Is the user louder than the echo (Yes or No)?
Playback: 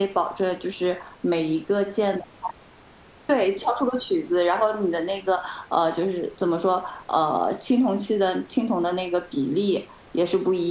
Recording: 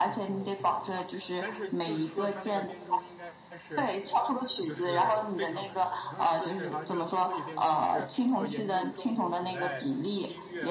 No